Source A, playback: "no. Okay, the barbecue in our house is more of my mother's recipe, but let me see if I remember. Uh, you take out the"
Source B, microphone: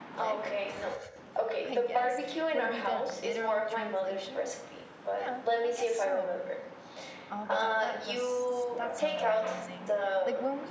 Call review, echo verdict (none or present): present